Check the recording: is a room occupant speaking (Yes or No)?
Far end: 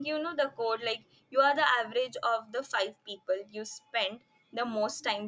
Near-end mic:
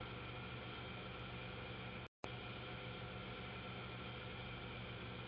No